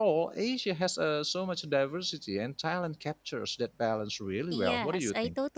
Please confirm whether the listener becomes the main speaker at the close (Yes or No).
Yes